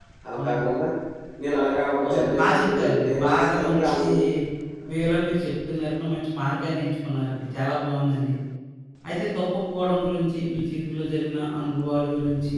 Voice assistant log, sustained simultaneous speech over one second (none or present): present